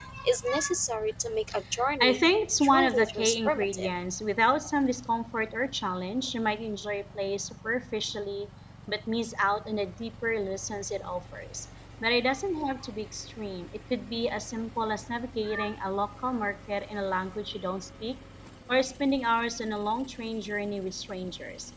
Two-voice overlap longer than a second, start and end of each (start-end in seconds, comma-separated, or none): 2.6-3.9